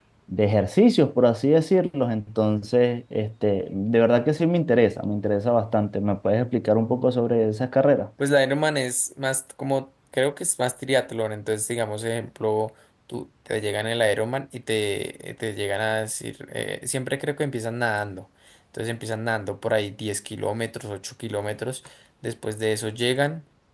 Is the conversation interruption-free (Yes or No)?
Yes